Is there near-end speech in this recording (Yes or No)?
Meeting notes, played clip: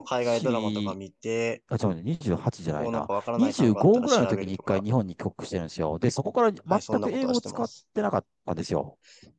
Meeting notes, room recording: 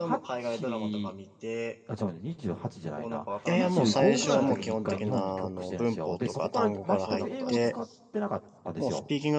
Yes